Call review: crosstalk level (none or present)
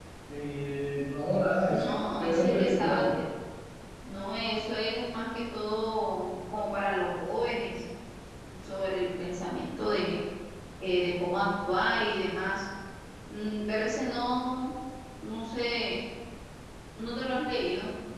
present